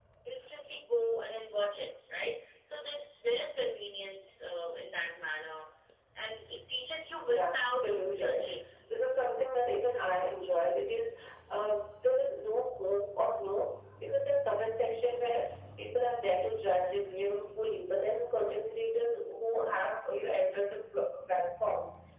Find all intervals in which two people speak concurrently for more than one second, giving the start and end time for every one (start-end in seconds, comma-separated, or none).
7.3-8.5